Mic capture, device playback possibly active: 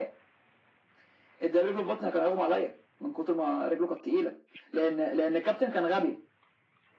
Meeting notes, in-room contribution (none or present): none